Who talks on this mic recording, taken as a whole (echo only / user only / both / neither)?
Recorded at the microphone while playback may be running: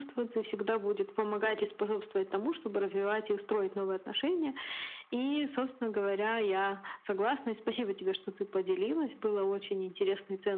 echo only